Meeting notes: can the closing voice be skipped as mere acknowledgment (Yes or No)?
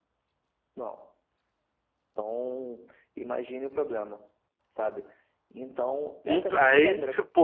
No